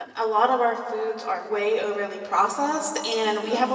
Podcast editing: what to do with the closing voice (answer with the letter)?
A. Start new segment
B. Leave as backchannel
B